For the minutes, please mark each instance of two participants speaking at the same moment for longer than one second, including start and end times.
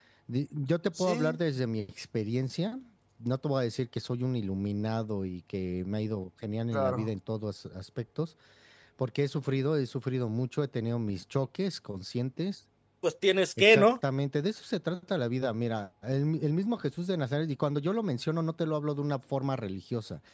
none

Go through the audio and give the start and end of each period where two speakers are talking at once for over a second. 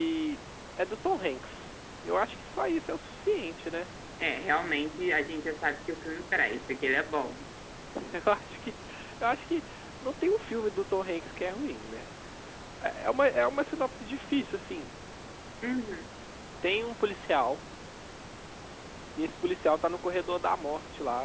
none

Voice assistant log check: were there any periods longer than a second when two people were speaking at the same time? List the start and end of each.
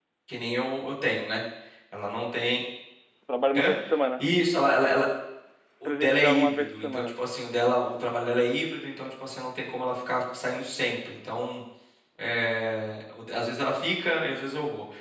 5.8-7.1

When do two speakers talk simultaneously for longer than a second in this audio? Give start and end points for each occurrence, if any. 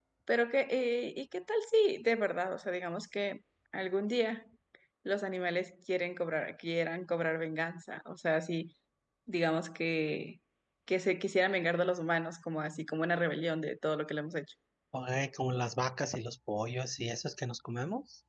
none

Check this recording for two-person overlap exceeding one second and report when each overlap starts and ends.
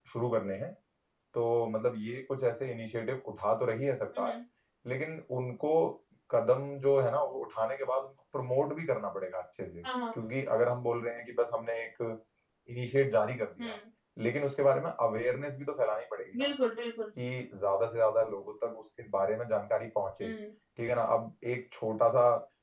none

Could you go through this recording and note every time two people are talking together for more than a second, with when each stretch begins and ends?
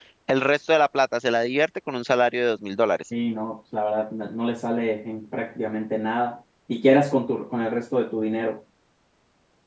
none

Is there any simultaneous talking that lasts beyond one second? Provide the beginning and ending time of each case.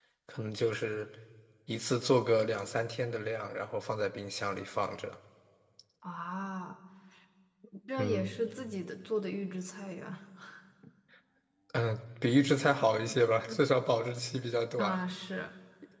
none

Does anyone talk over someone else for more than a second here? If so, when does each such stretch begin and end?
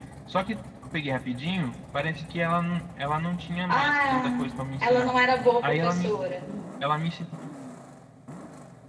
3.7-5.2

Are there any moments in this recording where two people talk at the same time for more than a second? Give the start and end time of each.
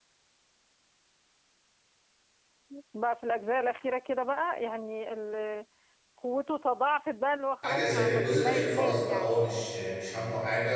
7.6-9.4

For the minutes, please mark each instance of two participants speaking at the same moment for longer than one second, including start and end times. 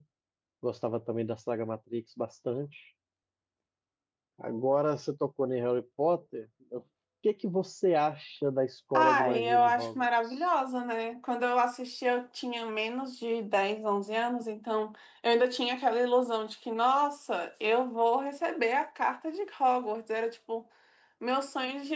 8.9-10.4

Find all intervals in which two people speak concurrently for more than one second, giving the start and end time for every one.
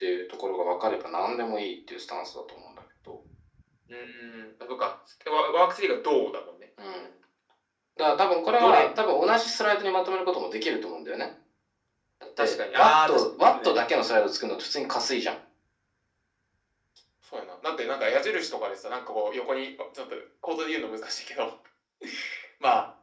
12.4-13.7

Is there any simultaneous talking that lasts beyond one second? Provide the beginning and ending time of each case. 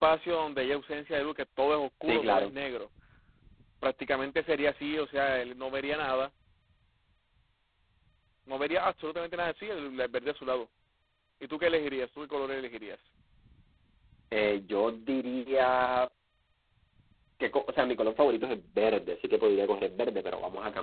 none

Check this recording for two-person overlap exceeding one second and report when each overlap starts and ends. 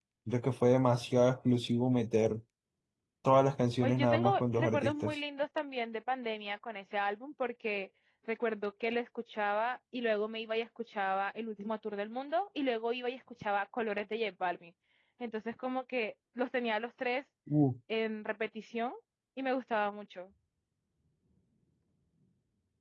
3.8-5.1

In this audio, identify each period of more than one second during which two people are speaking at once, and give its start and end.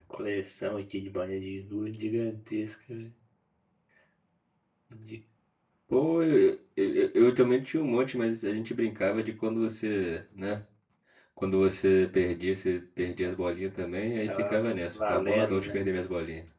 14.3-15.8

